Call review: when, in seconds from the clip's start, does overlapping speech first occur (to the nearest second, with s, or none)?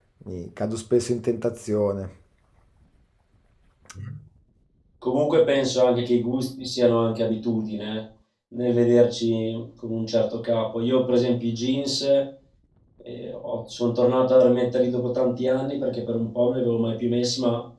none